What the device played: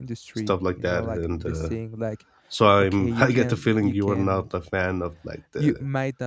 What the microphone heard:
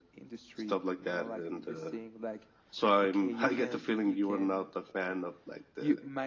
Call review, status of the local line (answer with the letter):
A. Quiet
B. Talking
A